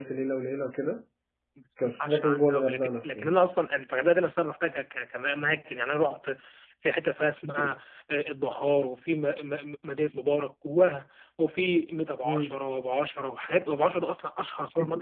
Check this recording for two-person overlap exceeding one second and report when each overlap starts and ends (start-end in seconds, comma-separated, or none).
1.8-3.3